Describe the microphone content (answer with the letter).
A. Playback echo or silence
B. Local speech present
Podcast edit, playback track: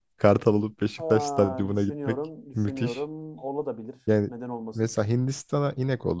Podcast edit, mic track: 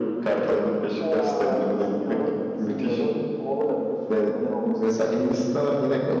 A